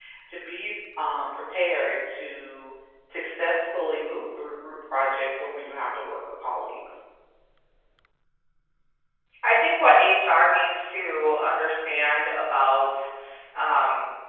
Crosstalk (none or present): none